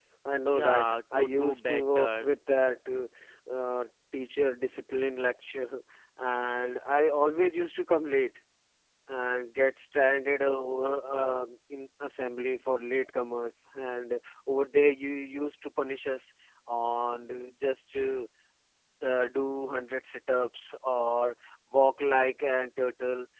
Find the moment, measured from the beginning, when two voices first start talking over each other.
0.5 s

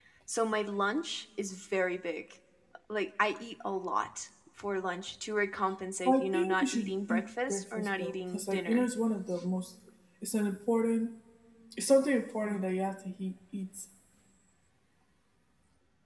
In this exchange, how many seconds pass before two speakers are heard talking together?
6.0 s

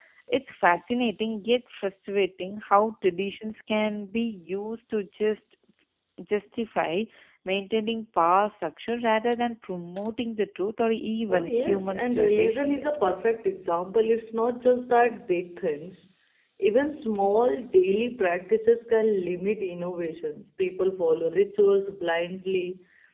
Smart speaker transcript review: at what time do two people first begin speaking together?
11.3 s

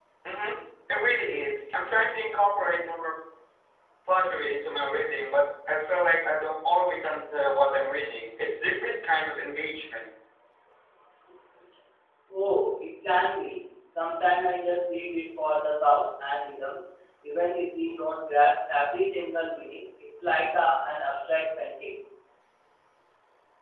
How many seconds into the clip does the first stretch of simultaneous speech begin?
none

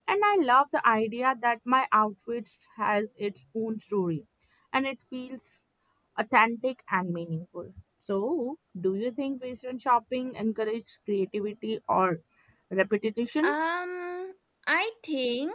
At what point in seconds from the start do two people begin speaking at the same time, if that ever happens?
none

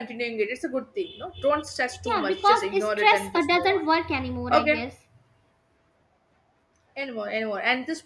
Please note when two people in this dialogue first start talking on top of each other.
2.1 s

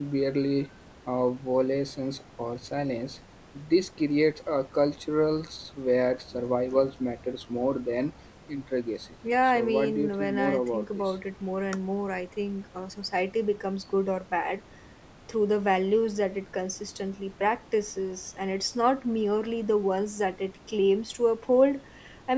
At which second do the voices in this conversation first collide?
9.2 s

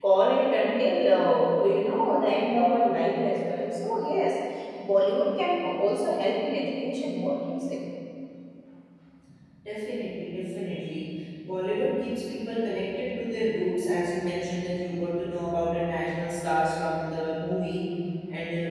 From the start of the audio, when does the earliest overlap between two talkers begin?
none

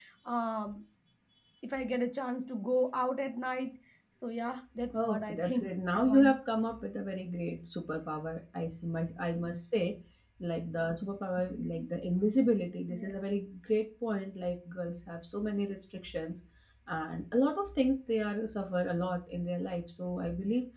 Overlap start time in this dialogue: 4.9 s

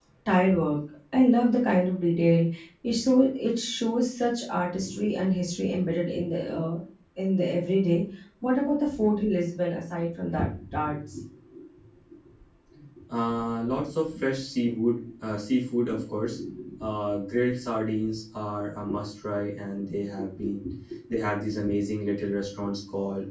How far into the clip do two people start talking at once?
none

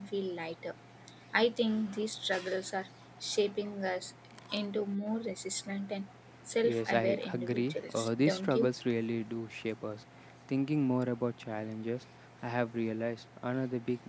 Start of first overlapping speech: 6.6 s

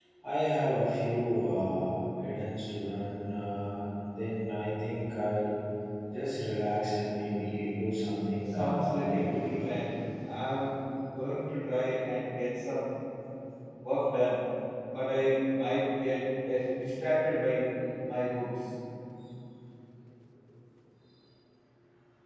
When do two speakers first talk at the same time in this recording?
8.5 s

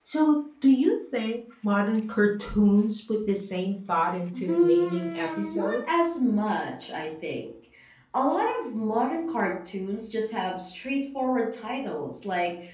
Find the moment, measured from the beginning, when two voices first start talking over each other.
4.3 s

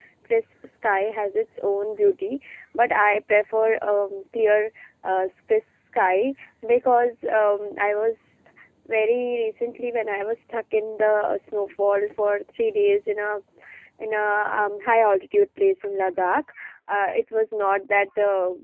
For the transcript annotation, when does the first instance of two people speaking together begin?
none

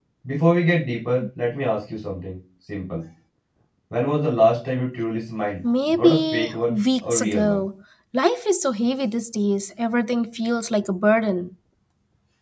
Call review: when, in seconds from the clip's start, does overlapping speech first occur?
5.9 s

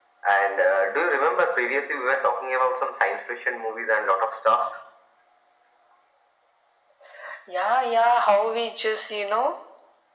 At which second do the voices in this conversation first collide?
none

